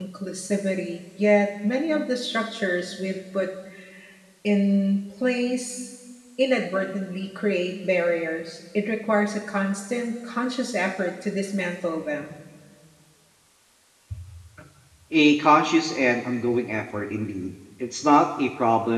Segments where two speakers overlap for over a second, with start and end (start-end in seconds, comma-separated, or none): none